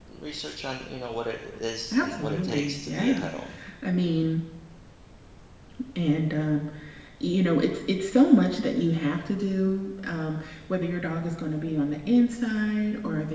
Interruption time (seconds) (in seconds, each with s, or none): 1.9 s